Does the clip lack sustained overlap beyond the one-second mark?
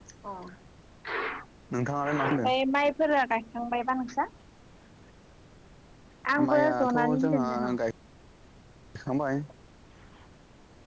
No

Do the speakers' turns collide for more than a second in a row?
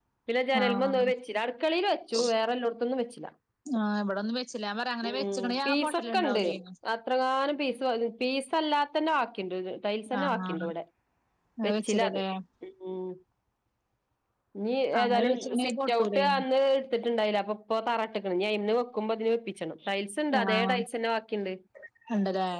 Yes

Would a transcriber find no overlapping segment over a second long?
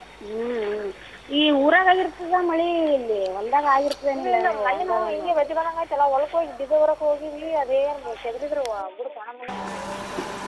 No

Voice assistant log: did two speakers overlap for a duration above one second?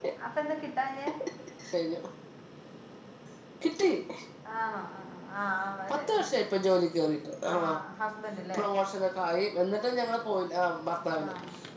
No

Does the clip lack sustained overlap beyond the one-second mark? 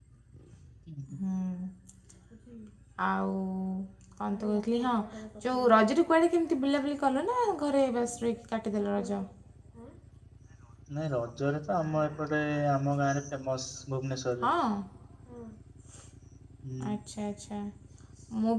Yes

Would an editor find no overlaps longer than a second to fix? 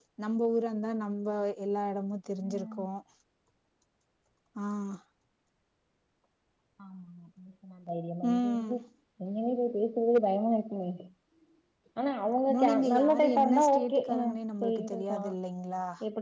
No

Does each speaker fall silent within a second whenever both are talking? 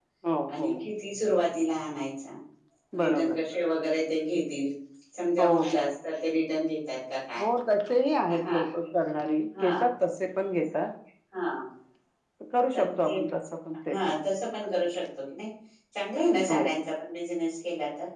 Yes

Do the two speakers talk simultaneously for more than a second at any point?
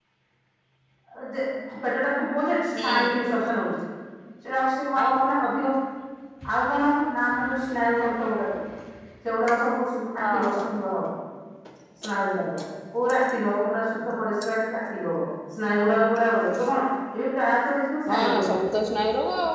No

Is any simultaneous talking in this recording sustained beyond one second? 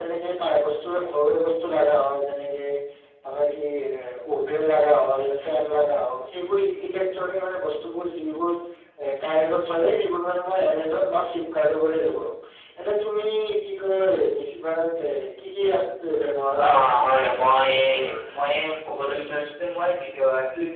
Yes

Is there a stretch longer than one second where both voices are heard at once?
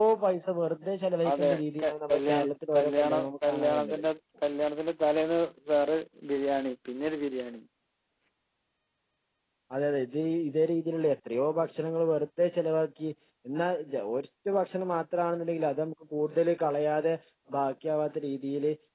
Yes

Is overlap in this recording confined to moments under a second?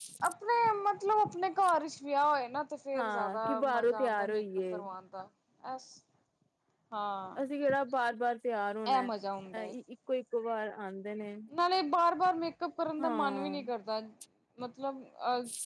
No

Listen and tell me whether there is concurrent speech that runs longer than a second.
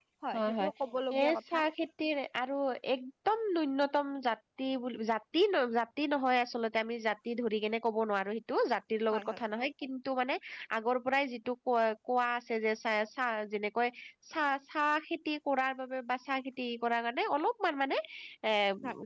No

